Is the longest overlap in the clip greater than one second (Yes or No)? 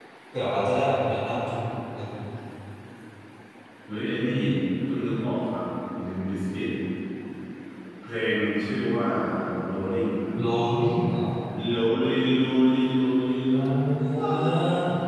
No